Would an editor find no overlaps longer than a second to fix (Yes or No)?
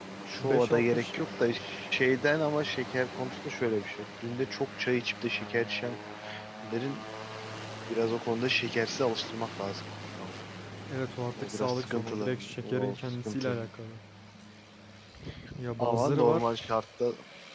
No